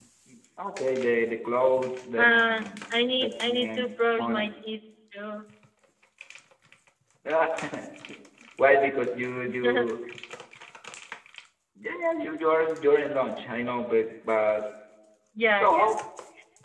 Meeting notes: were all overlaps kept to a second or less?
No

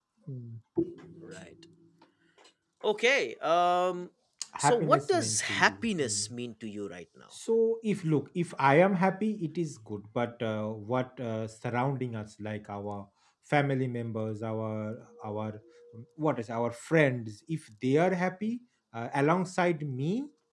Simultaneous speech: Yes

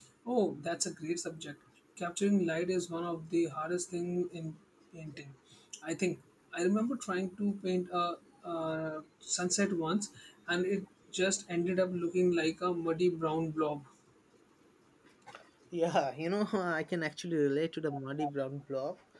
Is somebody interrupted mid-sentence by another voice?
No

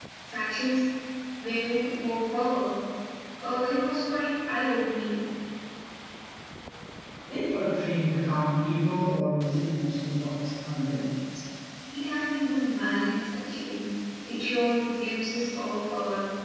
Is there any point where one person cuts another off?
No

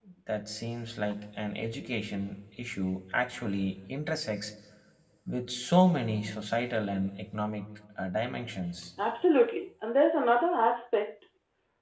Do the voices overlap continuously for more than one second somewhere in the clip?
No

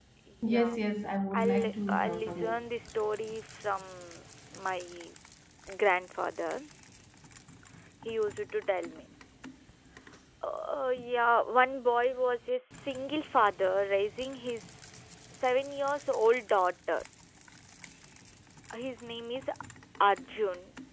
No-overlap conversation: No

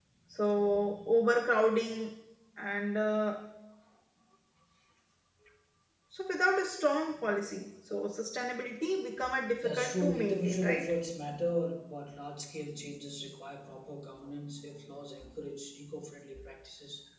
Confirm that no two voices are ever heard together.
No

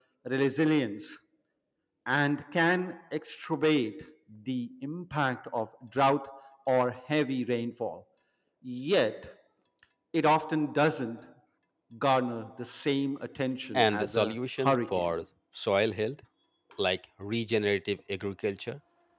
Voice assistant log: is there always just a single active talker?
No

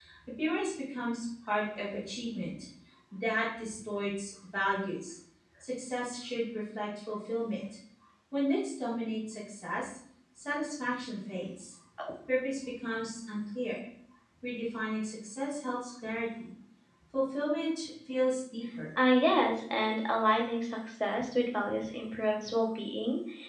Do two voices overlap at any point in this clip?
No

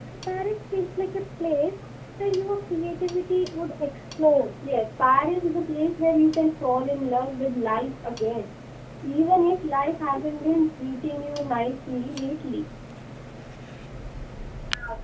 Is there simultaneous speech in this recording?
No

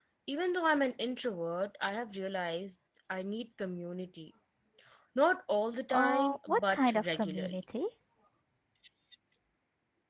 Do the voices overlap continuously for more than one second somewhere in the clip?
Yes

